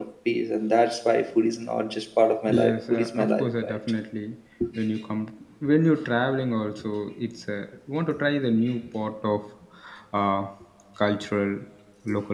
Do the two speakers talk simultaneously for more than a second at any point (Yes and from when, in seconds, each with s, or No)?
Yes, from 2.5 s